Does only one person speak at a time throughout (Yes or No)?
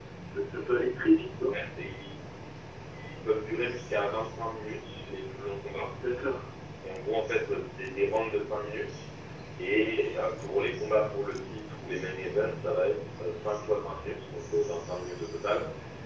Yes